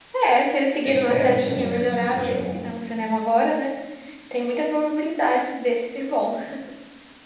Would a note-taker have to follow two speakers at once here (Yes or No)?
Yes